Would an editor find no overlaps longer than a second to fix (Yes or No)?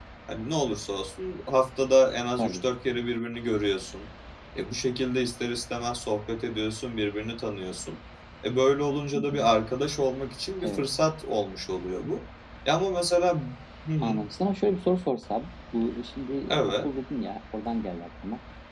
Yes